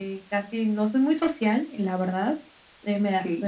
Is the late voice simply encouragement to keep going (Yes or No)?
Yes